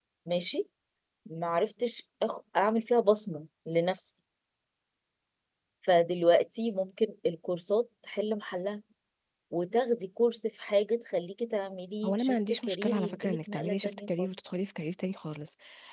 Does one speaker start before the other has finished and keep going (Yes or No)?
Yes